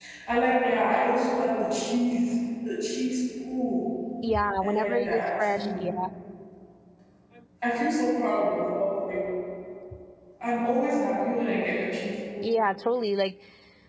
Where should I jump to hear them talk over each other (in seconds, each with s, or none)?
4.6 s